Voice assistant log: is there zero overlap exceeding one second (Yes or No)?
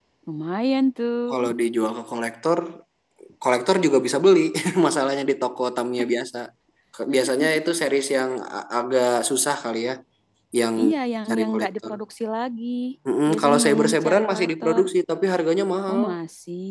No